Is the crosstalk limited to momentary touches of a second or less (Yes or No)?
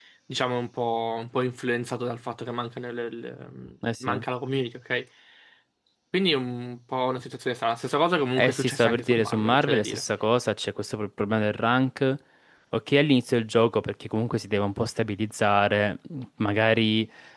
No